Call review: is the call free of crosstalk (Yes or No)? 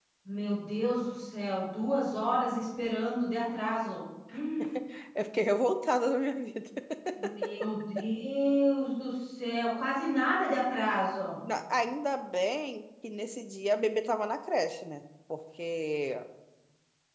Yes